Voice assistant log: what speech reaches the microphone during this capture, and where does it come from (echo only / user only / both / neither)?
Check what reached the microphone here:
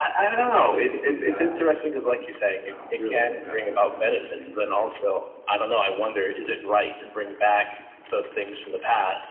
both